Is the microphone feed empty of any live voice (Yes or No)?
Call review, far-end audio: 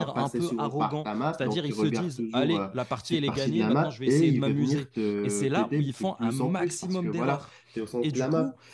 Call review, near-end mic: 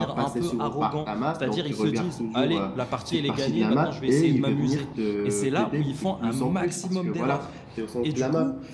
Yes